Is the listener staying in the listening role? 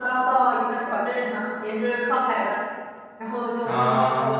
Yes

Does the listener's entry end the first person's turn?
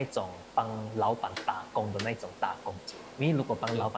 No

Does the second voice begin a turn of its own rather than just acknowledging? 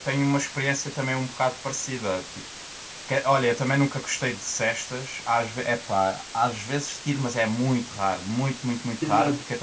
Yes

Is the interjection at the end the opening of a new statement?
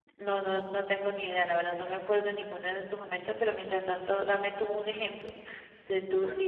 No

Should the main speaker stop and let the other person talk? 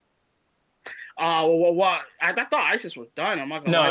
Yes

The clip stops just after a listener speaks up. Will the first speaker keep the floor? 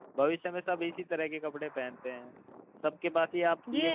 Yes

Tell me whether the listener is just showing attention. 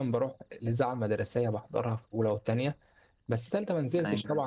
Yes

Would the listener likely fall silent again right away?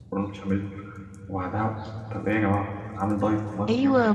No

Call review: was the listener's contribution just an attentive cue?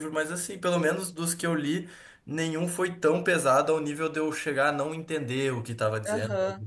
No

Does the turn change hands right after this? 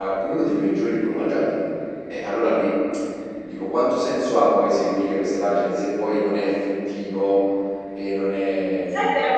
Yes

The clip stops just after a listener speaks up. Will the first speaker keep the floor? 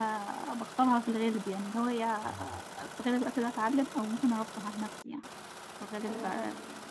Yes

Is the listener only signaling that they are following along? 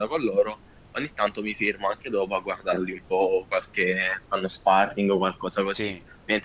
Yes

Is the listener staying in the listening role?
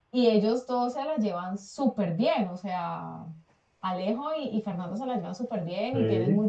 Yes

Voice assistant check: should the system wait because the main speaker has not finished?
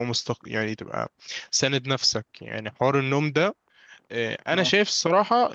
Yes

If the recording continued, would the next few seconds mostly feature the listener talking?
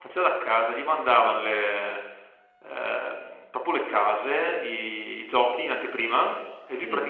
No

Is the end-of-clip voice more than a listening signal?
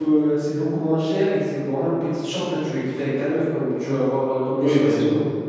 Yes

